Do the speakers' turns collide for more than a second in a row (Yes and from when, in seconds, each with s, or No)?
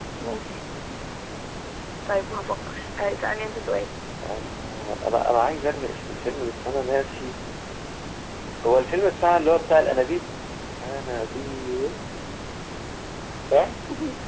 No